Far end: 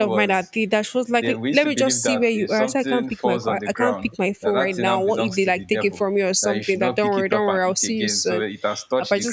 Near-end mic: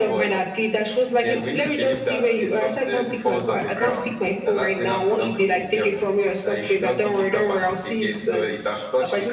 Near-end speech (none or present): none